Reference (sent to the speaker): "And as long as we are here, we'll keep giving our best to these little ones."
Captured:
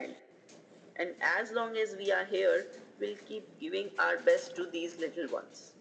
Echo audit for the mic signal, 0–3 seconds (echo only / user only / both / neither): echo only